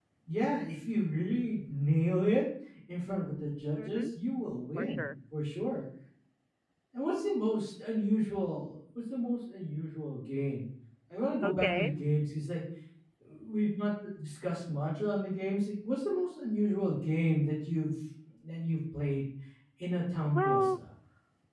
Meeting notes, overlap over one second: none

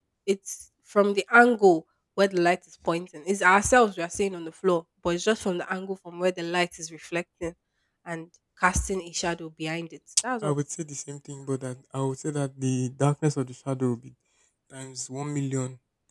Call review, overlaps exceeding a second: none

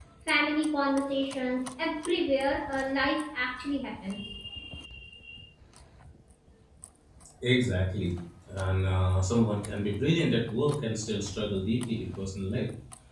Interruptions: none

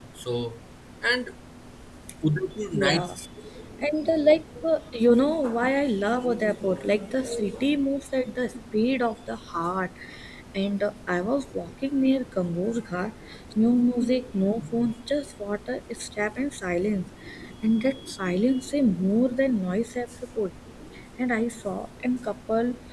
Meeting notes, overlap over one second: none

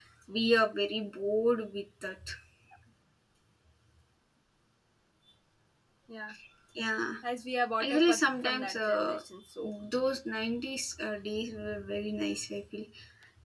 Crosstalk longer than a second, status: present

